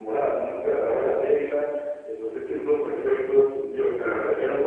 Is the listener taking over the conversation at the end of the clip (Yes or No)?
No